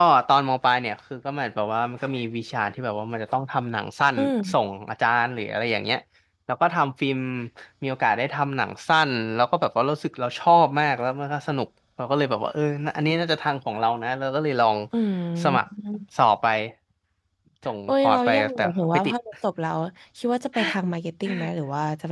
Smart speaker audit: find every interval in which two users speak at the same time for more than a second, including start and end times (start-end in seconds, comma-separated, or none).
17.9-19.1